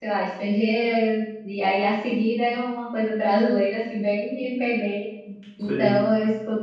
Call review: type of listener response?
listening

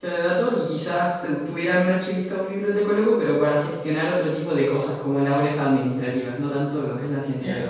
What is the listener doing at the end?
taking over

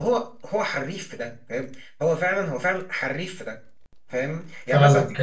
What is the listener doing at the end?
taking over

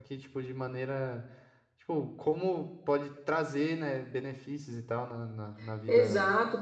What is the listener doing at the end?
taking over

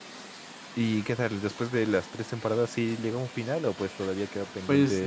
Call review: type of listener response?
taking over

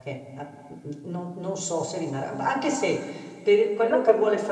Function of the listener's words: listening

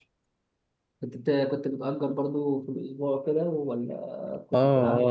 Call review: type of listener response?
taking over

